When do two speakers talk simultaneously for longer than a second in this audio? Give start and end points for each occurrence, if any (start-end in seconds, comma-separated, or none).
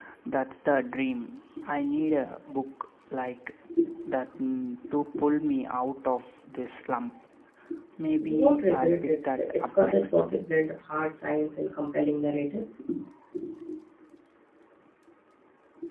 8.2-10.1